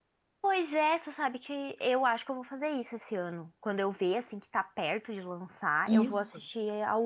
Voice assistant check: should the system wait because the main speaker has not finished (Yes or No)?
Yes